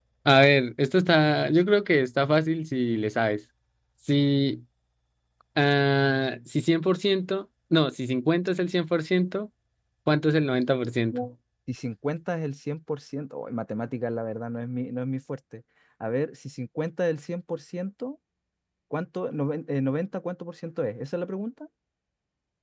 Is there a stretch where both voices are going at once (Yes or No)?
No